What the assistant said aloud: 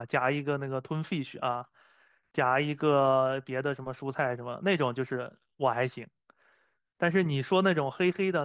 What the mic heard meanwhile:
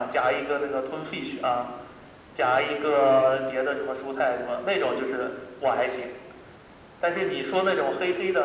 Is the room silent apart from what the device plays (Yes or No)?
Yes